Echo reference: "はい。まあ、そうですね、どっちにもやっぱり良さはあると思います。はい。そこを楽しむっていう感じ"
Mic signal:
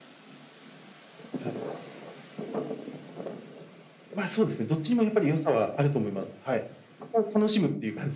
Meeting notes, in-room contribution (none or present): none